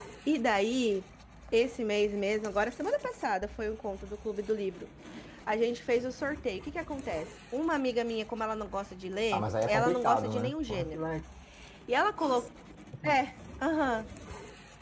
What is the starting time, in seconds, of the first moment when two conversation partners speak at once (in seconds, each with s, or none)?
9.3 s